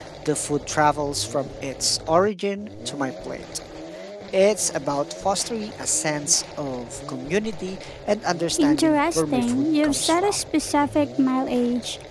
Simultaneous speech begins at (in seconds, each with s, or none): 8.6 s